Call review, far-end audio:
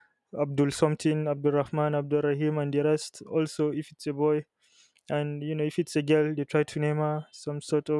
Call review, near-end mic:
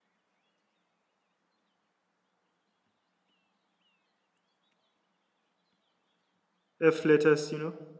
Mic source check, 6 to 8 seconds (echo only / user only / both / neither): user only